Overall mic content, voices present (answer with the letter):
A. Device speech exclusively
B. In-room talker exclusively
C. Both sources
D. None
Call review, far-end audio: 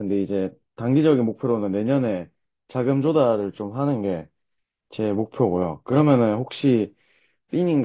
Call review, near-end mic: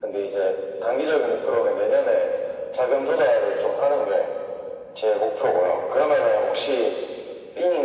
A